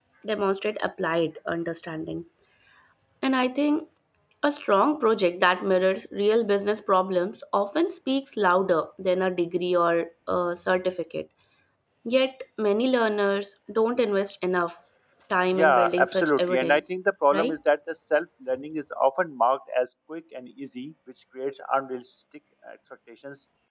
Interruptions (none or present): present